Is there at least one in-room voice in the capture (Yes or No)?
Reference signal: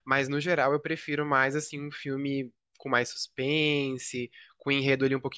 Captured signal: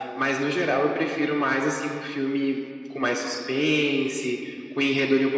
No